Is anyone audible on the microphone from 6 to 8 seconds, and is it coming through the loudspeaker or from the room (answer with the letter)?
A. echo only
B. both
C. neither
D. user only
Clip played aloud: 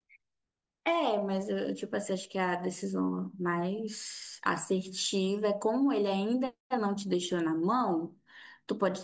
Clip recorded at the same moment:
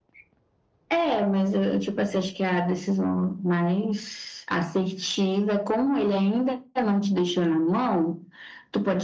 A